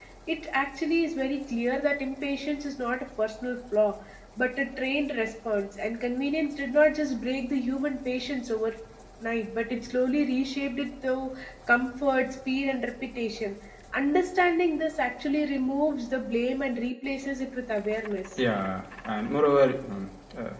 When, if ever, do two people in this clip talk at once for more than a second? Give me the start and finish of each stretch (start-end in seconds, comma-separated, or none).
none